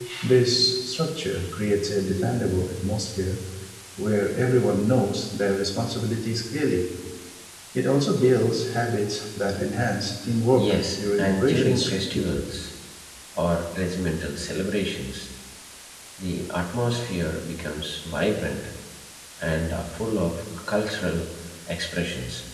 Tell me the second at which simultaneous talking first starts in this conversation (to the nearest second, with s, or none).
11 s